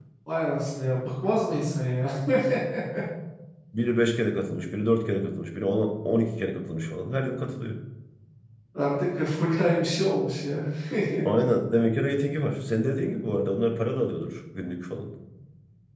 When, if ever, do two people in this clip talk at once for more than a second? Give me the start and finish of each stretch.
none

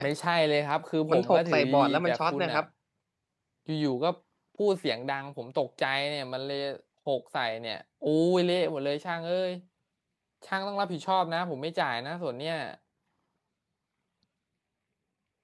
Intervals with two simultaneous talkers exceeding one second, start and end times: 1.1-2.6

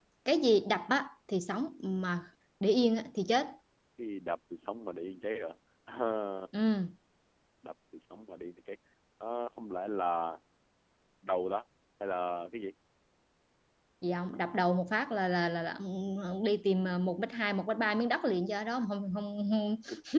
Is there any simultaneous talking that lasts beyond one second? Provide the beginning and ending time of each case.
none

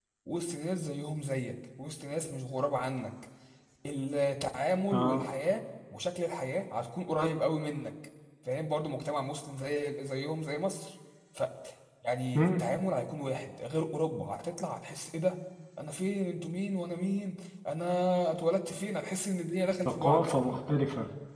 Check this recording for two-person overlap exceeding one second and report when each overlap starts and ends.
none

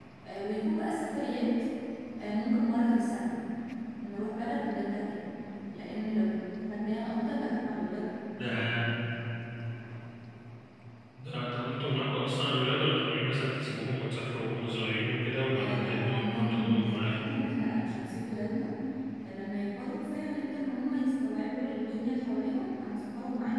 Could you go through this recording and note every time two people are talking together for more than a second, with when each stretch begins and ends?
15.6-17.1

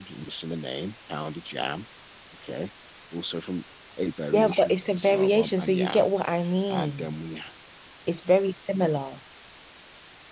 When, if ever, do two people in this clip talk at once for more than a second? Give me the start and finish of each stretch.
4.3-6.1

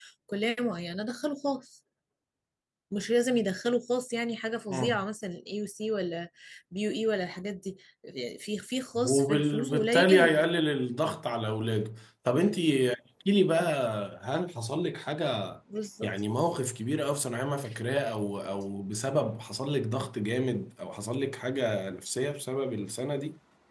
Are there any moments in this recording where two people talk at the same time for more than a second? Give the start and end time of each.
9.0-10.3

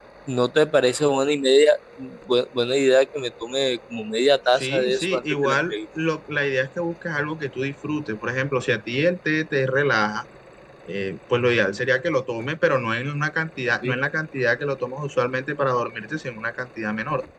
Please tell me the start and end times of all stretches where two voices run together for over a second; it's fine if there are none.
4.5-5.7

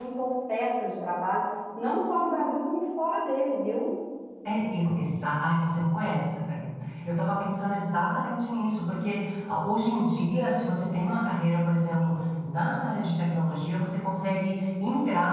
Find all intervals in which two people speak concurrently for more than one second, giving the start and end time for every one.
none

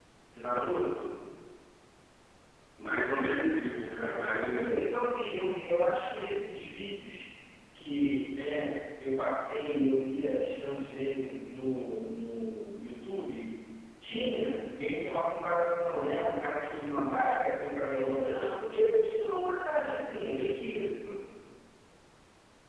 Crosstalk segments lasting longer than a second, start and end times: 3.5-5.1

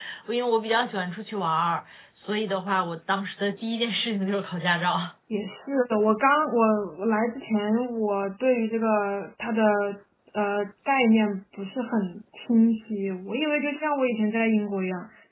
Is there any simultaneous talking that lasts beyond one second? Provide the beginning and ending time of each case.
none

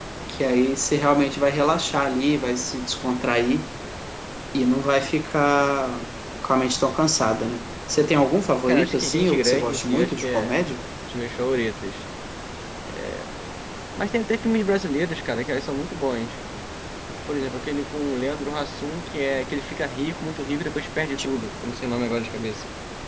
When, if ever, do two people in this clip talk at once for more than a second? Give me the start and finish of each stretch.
8.7-10.5

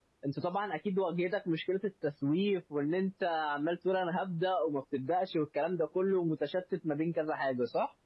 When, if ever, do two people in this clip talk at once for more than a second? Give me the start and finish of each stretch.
none

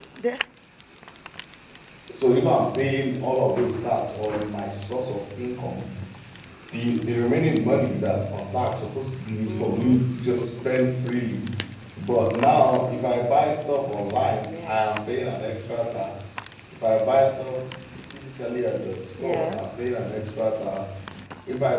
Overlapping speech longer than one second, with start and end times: none

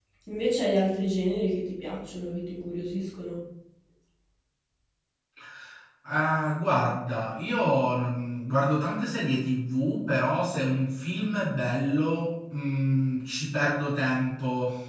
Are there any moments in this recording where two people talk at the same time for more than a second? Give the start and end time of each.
none

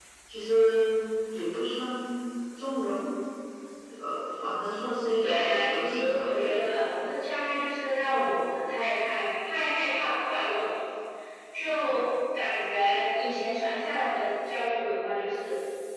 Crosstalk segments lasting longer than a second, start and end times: 5.2-6.6

